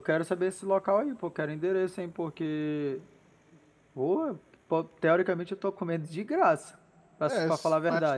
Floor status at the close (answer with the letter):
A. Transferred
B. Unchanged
A